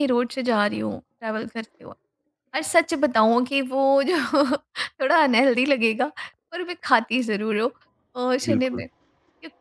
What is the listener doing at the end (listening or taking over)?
listening